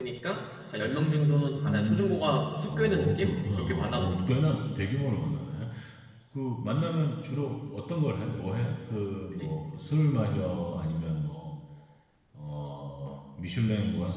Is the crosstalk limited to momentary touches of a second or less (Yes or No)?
No